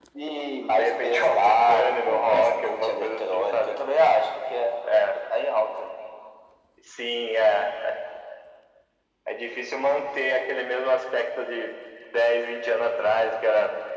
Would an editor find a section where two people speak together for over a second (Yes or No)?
Yes